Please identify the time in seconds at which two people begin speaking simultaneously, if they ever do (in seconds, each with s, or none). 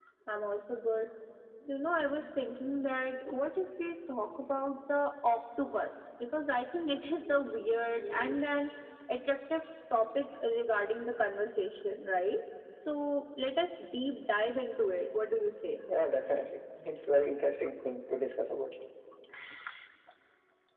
none